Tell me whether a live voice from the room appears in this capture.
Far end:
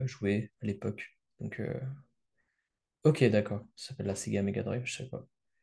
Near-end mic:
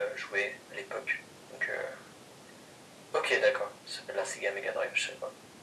No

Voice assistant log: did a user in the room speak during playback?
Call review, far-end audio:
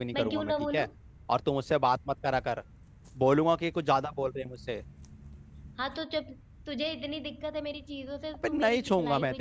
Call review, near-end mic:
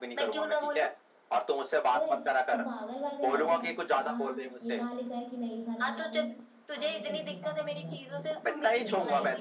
Yes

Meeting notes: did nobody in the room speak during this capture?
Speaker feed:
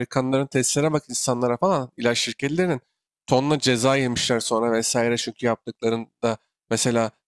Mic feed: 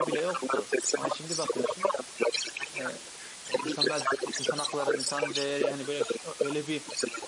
No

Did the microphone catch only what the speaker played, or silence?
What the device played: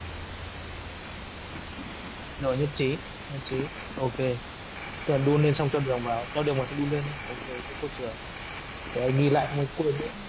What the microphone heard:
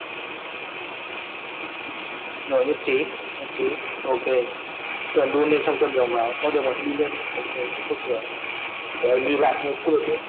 Yes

